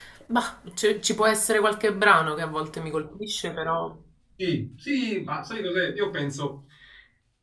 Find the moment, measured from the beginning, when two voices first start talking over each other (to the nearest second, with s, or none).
none